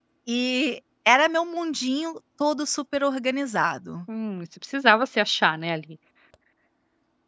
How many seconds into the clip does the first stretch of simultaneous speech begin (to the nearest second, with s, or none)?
none